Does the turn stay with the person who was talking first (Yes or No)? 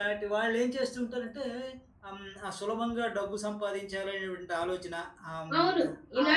No